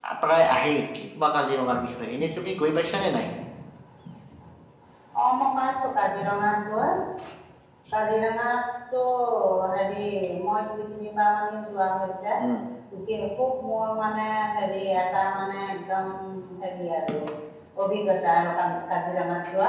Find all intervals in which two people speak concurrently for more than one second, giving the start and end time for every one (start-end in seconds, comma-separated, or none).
none